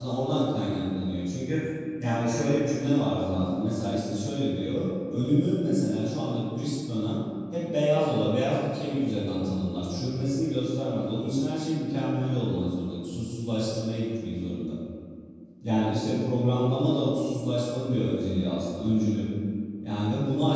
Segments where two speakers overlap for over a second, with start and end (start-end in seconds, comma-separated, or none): none